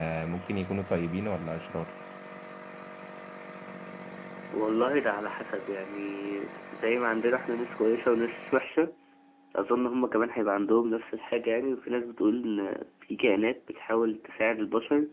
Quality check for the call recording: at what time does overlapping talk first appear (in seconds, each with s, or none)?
none